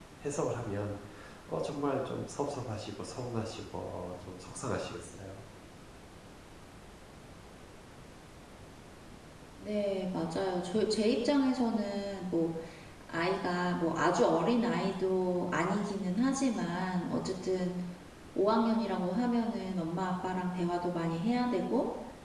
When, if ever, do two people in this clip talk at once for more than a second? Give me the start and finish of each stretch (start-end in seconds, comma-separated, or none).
none